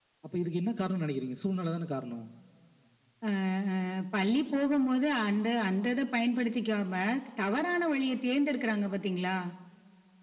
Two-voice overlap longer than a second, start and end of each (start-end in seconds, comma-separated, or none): none